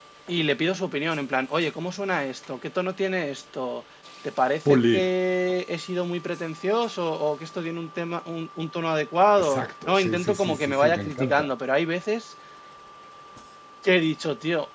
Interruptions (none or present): present